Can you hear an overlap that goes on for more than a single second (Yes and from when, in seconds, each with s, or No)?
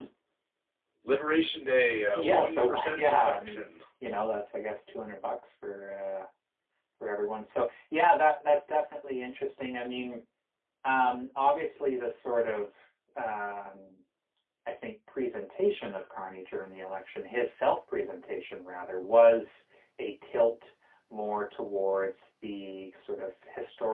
Yes, from 2.2 s